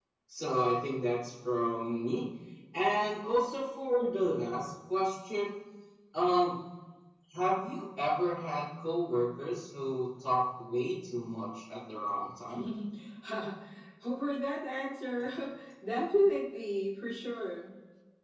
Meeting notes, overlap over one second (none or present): none